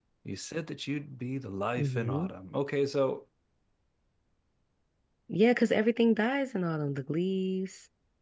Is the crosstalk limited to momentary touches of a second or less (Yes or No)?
Yes